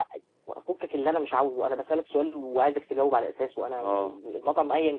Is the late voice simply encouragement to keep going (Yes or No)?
Yes